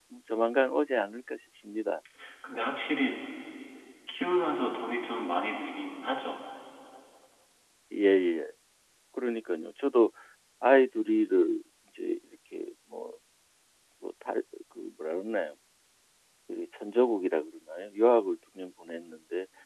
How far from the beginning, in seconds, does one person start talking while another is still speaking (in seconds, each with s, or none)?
none